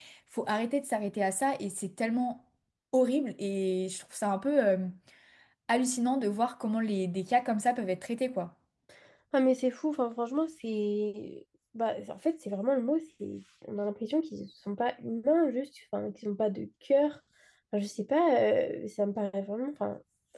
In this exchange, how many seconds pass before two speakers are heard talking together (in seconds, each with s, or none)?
none